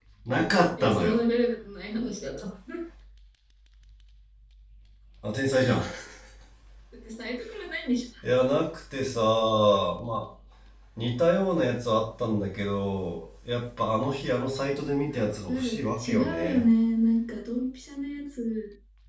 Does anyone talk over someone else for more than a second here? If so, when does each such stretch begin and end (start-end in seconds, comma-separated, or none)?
15.2-16.6